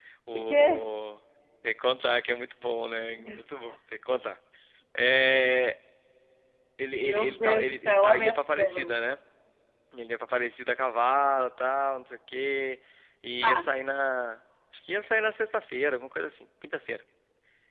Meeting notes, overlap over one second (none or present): present